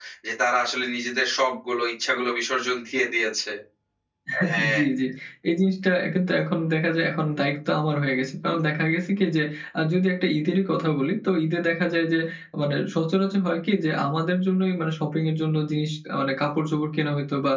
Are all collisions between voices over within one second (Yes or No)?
Yes